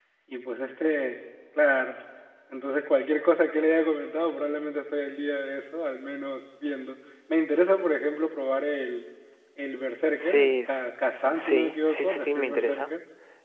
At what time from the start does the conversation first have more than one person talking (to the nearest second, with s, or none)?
10 s